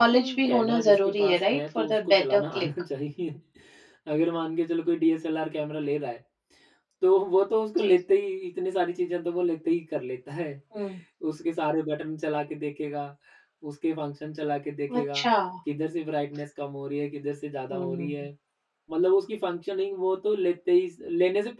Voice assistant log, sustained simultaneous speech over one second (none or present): present